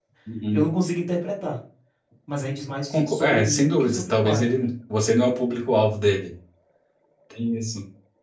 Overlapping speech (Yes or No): Yes